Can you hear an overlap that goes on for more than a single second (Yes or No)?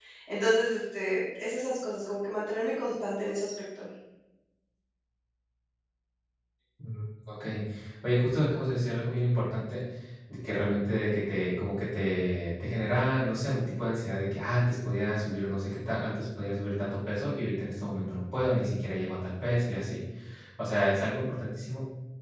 No